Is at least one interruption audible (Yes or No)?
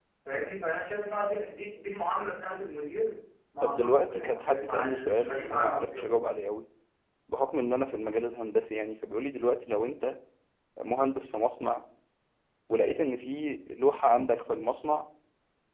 Yes